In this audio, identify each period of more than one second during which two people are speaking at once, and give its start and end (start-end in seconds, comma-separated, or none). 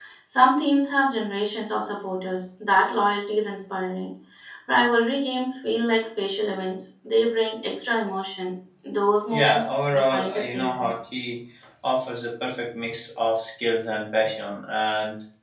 9.3-10.9